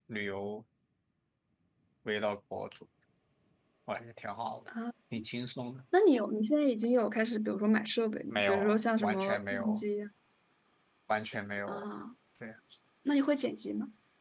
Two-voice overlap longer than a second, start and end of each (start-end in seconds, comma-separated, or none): 8.3-9.8